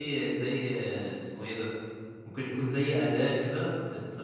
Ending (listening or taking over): listening